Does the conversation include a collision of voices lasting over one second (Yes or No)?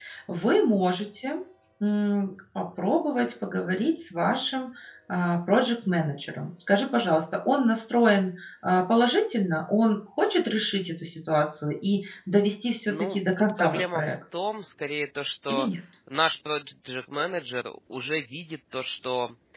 Yes